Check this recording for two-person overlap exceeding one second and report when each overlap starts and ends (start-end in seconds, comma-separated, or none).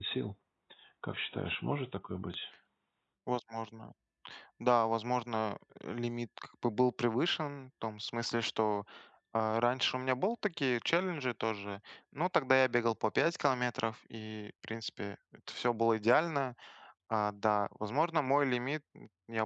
none